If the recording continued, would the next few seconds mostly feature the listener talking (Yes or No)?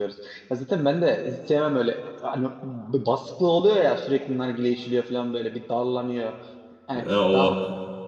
No